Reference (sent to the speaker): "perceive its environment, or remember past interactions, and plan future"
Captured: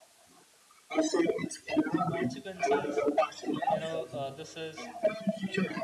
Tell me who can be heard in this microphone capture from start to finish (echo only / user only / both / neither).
both